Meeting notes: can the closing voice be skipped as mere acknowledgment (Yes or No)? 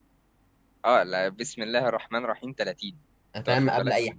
No